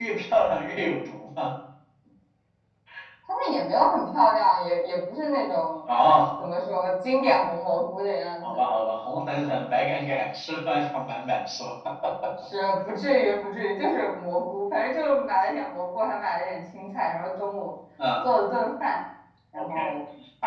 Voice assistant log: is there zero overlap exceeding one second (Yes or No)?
Yes